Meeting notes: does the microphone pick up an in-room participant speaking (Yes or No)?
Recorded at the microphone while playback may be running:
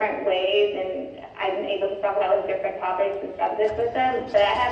No